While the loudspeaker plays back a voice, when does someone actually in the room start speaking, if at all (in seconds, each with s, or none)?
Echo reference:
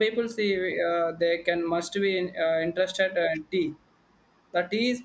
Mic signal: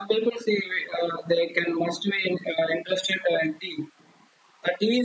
none